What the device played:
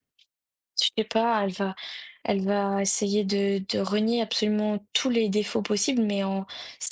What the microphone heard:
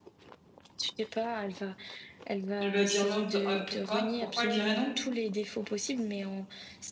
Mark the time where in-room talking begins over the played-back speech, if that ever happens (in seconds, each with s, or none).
2.6 s